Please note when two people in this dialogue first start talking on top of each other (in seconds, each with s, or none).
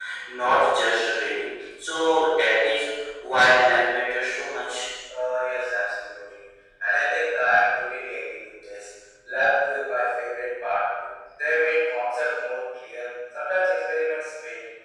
none